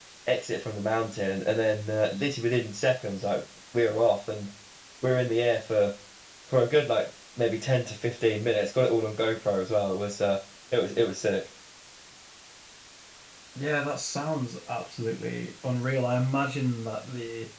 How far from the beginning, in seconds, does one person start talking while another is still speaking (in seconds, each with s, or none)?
none